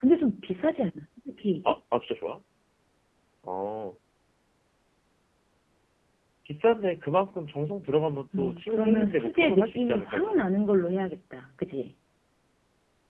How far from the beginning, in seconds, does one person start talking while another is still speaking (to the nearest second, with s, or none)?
8 s